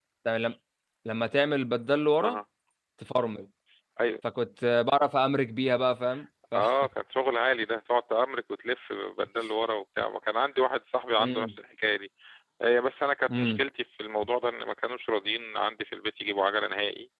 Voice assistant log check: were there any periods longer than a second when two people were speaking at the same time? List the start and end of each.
none

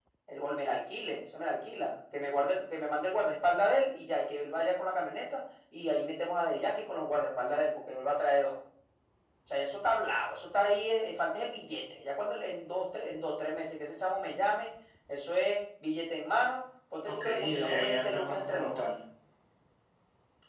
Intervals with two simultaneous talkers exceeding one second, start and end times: 17.0-18.8

